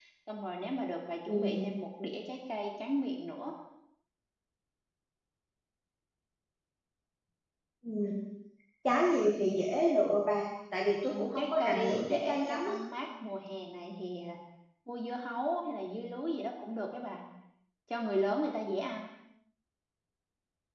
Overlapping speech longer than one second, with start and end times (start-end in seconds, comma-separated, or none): 11.1-12.7